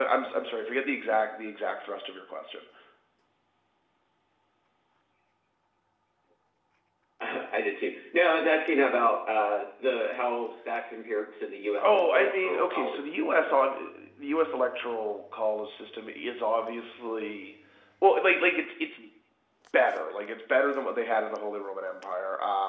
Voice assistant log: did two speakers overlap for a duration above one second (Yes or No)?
Yes